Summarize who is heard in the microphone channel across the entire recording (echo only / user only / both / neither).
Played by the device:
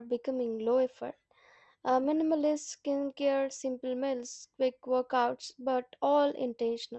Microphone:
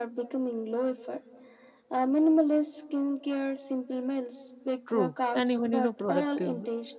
both